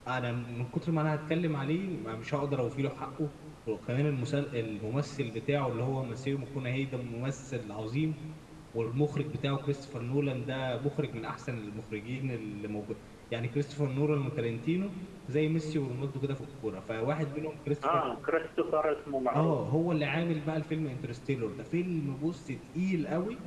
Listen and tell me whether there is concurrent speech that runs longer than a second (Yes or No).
No